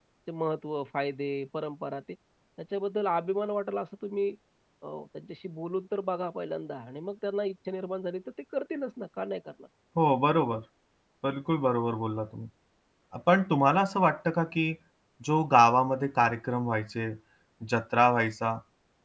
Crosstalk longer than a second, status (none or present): none